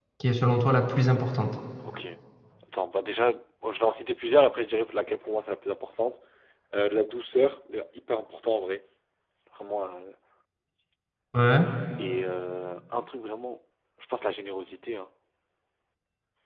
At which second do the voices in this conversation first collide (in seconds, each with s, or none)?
none